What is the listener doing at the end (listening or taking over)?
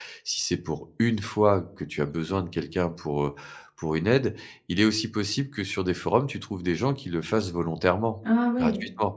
taking over